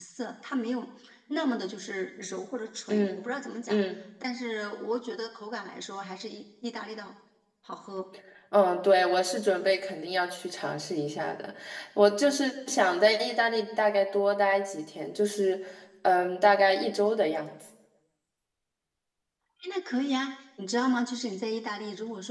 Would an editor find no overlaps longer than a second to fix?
Yes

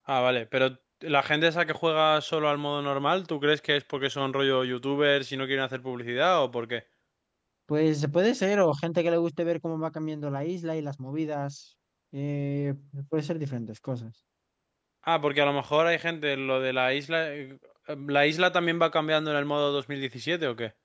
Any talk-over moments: No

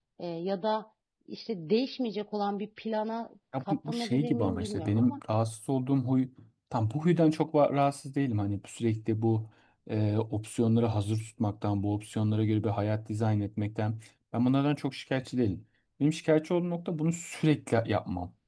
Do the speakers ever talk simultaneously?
Yes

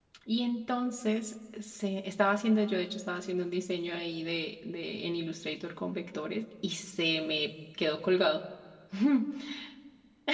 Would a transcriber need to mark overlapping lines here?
No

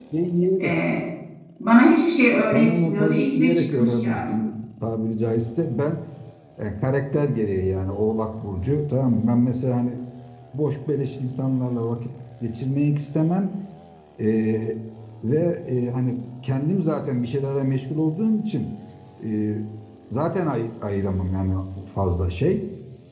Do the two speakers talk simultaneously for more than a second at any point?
Yes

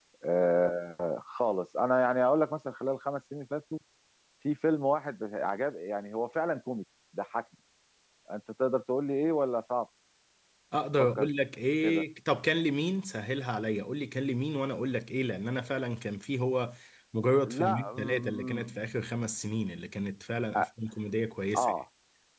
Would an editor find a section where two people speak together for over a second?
Yes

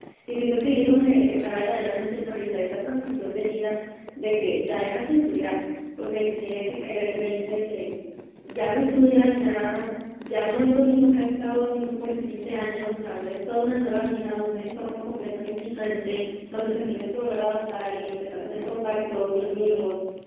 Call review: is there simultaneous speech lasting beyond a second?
No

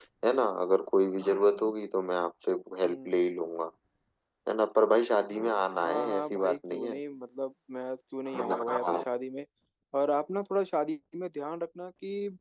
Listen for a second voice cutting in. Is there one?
Yes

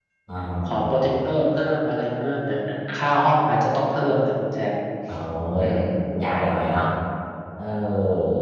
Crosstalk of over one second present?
No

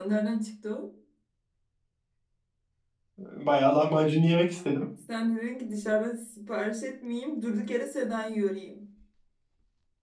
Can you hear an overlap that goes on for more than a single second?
No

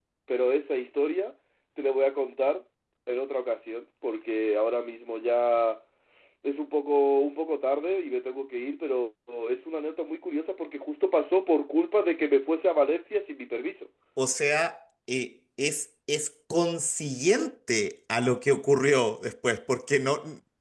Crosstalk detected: No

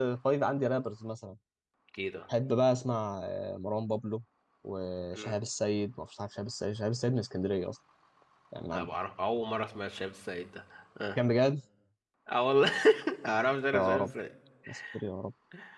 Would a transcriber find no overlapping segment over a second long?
Yes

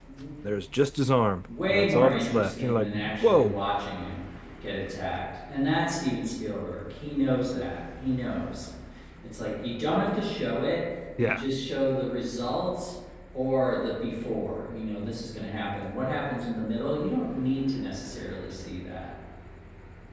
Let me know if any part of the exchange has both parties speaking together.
Yes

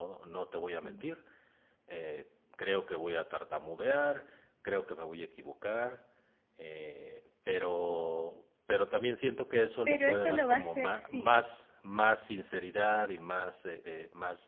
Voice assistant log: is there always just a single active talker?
No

